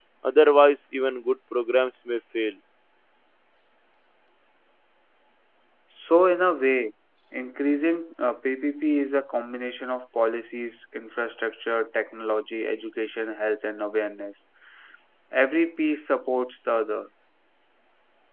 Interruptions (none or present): none